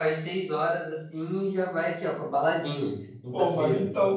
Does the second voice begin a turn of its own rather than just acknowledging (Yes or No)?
Yes